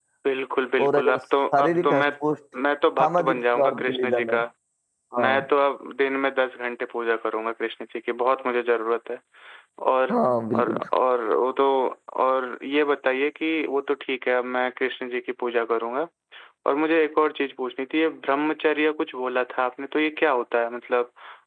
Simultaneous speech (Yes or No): Yes